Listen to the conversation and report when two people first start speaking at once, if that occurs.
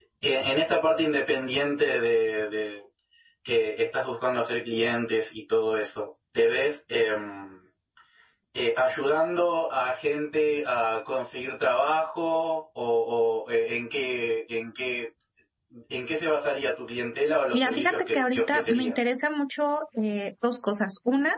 17.5 s

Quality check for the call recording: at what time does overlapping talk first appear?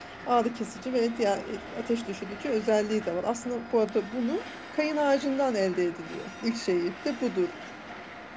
none

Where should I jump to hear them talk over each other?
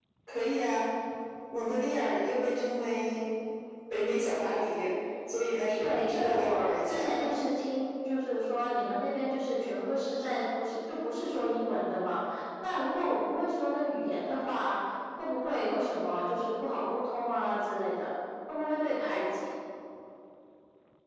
5.8 s

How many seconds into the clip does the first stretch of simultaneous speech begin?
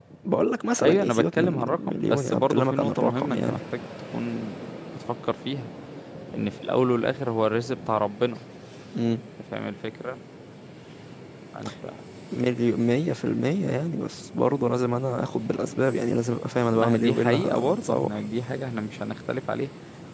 0.8 s

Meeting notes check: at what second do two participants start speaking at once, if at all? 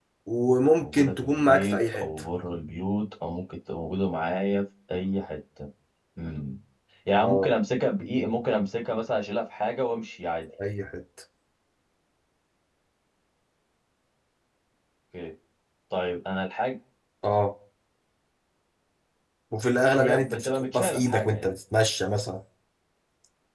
0.8 s

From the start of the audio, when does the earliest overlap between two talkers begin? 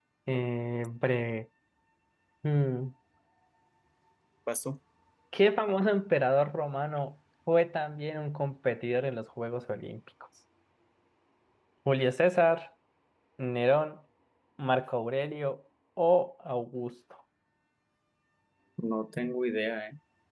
none

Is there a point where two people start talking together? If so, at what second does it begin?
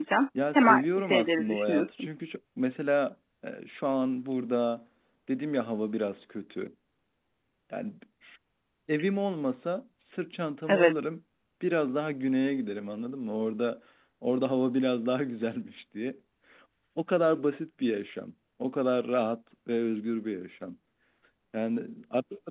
0.6 s

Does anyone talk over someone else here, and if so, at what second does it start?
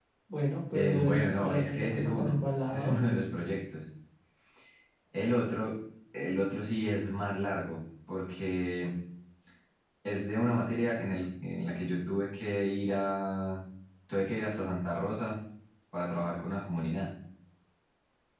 0.7 s

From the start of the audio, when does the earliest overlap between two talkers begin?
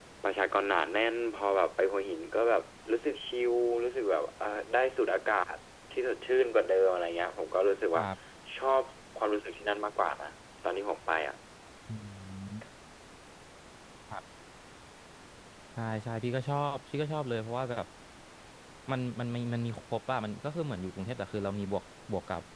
none

